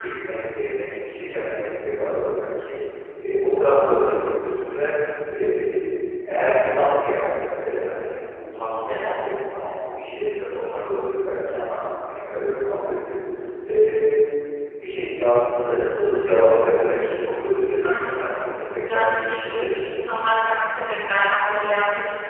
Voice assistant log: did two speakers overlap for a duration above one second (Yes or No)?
Yes